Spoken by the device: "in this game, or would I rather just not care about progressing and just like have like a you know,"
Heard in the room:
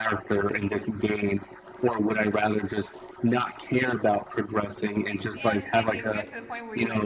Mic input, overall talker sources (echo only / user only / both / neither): both